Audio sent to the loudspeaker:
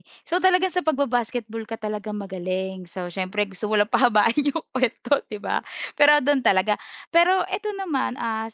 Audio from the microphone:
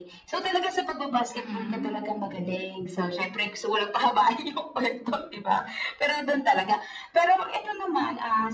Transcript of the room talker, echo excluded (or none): Mm.